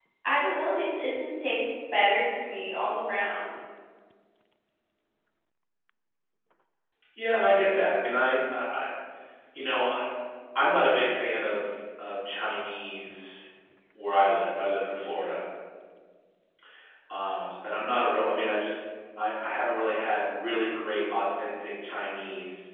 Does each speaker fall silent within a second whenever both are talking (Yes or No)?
Yes